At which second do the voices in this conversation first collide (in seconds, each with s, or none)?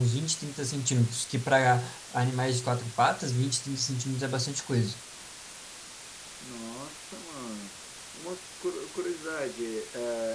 none